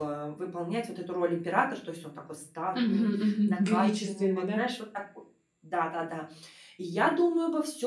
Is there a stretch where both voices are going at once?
Yes, from 2.7 s

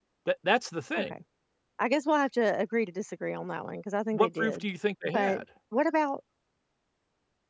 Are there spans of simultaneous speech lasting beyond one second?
No

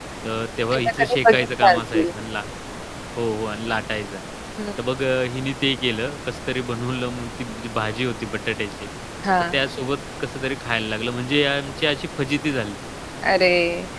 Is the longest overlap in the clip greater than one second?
Yes, from 0.7 s

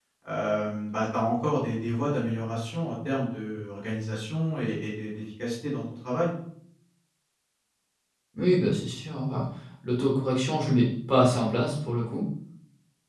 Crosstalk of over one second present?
No

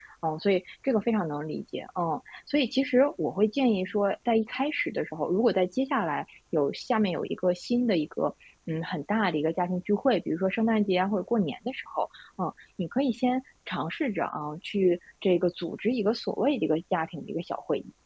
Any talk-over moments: No

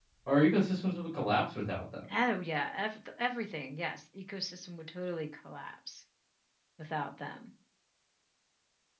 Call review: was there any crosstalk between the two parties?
No

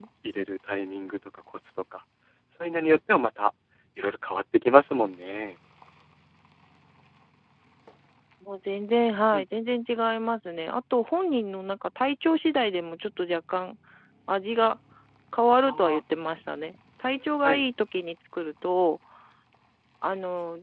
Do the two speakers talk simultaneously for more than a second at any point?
No

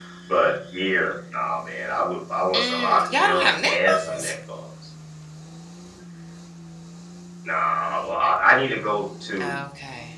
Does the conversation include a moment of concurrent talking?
Yes, from 2.5 s

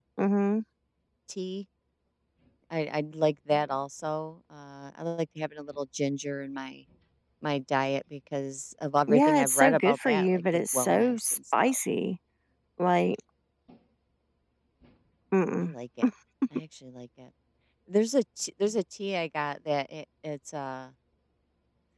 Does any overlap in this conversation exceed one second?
Yes, from 9.1 s

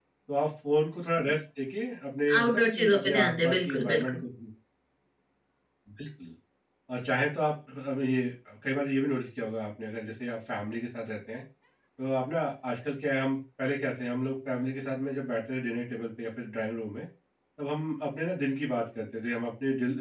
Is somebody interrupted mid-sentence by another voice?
Yes, from 2.3 s

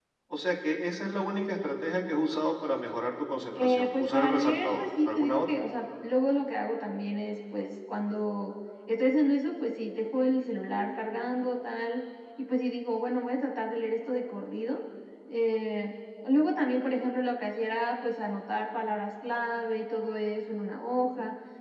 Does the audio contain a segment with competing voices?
Yes, from 3.5 s

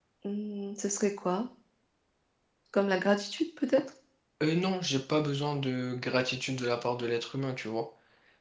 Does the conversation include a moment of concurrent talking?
No

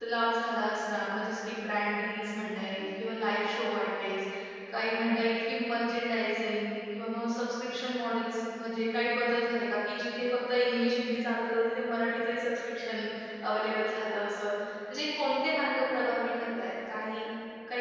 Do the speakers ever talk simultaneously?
No

